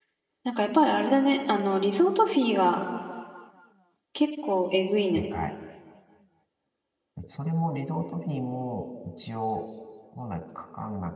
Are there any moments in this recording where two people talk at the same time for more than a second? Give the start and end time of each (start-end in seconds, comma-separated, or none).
none